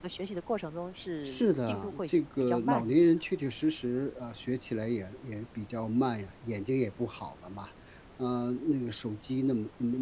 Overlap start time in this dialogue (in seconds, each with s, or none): 1.2 s